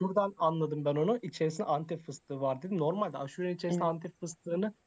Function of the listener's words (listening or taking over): listening